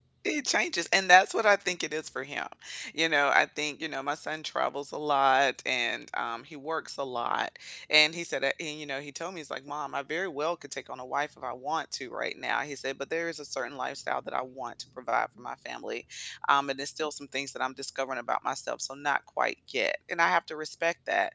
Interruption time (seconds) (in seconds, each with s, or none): none